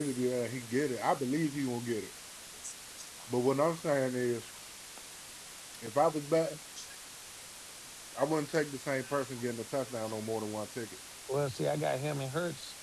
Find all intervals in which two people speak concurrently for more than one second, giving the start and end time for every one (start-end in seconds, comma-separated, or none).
none